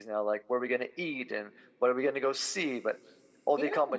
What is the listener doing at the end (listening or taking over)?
listening